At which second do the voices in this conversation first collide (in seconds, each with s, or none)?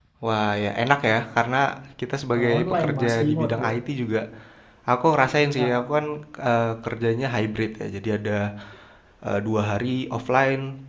2.4 s